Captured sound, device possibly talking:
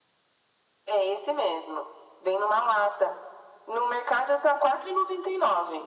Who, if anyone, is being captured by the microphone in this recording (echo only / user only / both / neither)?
echo only